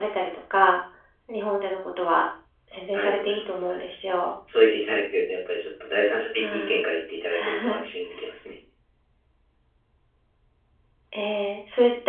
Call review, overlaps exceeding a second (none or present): present